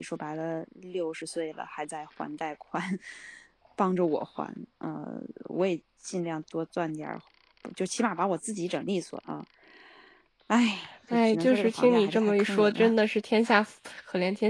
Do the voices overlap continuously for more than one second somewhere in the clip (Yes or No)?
Yes